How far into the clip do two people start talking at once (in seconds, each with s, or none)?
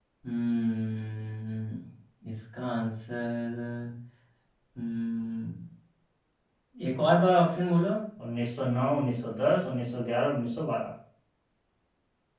none